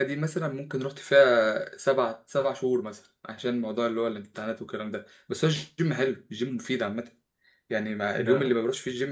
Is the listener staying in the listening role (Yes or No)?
Yes